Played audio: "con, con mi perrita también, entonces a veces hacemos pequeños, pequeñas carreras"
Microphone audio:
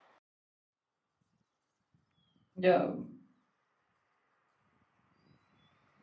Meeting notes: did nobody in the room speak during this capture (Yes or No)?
No